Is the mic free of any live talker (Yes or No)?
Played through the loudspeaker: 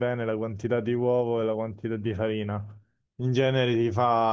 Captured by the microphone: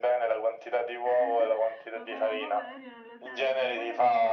No